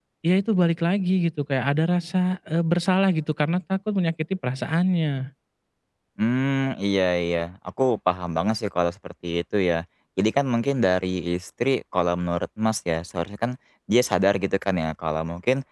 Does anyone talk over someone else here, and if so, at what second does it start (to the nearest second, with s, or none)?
none